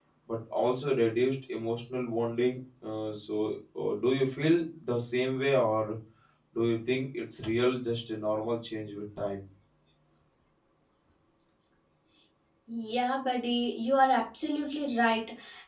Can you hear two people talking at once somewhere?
No

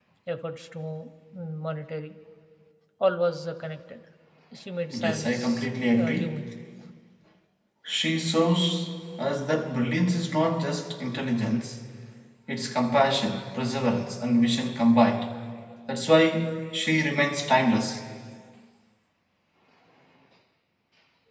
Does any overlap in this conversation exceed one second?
Yes, from 5.0 s

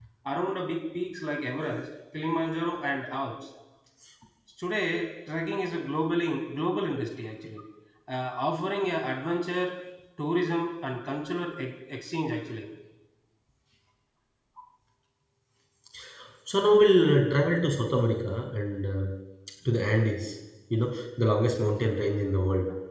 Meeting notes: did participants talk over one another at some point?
No

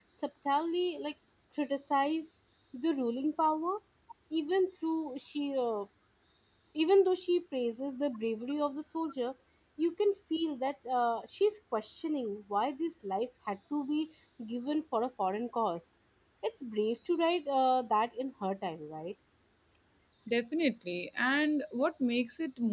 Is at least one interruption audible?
No

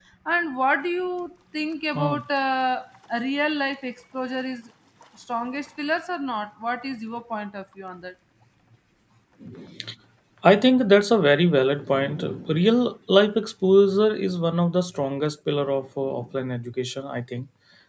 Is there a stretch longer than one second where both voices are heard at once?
No

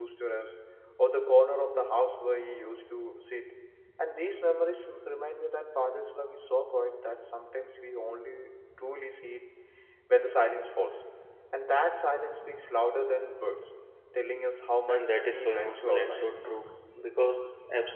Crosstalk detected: Yes, from 14.9 s

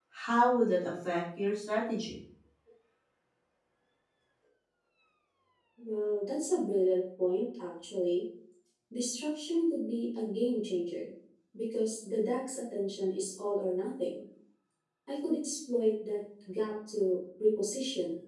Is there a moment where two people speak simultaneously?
No

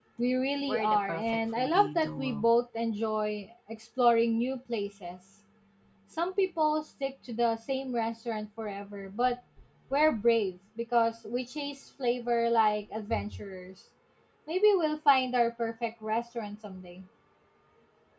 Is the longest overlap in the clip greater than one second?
Yes, from 0.7 s

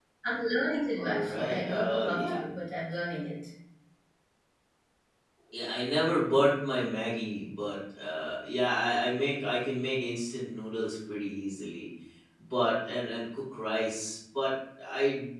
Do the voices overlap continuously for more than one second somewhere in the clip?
Yes, from 1.0 s

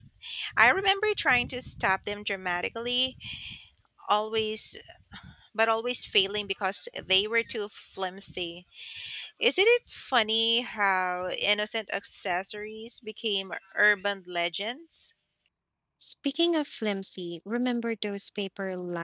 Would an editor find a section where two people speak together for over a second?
No

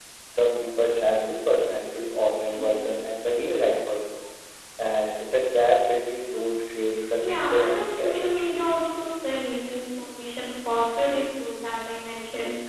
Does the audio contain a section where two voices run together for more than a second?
Yes, from 7.2 s

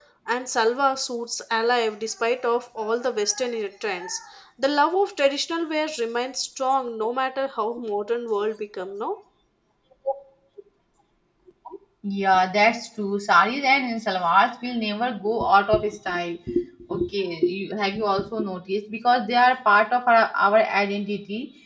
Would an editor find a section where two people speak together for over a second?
No

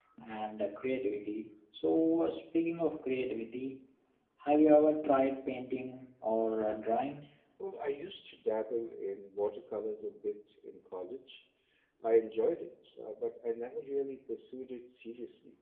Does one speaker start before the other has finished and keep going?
No

